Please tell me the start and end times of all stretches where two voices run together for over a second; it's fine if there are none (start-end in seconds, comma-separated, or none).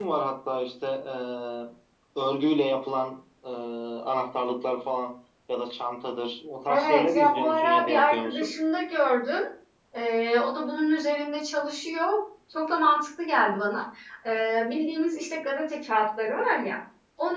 6.7-8.5